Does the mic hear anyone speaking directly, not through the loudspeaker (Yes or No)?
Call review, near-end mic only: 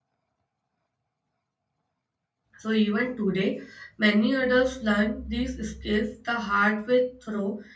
Yes